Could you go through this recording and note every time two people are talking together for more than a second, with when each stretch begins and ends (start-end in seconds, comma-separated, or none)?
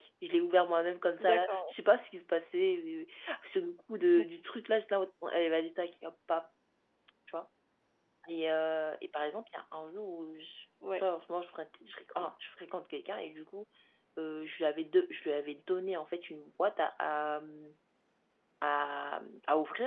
none